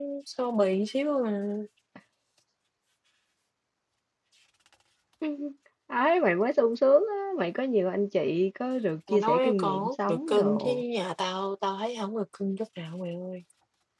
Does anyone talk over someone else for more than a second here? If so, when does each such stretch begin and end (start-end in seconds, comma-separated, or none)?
9.1-10.8